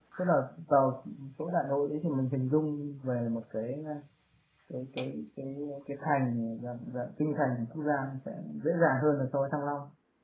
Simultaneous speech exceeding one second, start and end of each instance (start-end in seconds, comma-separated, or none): none